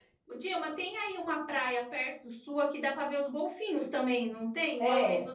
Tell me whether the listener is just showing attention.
No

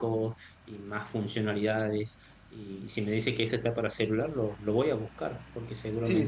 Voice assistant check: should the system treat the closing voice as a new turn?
Yes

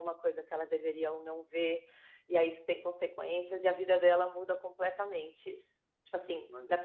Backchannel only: Yes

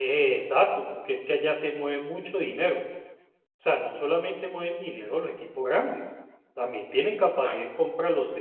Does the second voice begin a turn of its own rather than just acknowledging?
No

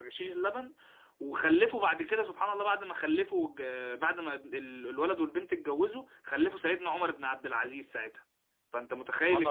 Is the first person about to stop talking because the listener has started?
Yes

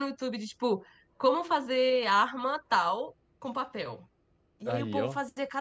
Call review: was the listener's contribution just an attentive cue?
Yes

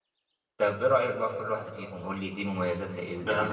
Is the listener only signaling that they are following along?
No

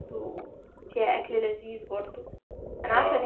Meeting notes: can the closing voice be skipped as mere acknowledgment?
Yes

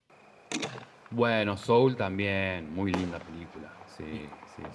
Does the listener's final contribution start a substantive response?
Yes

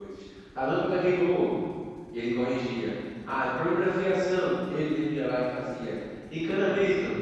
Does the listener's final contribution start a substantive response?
No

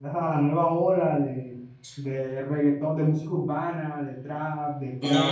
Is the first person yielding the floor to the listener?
Yes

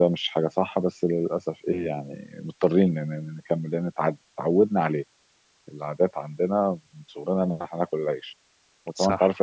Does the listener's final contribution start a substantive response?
No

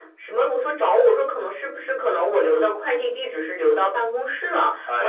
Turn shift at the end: No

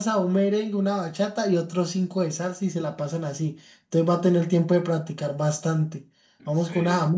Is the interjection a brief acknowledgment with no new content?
Yes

